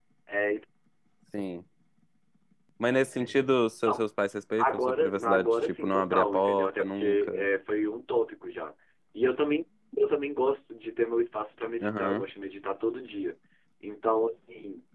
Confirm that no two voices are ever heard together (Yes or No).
No